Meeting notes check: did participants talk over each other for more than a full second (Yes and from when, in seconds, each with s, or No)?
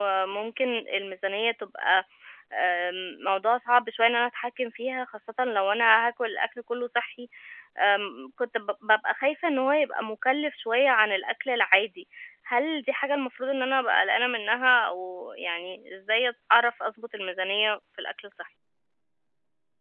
No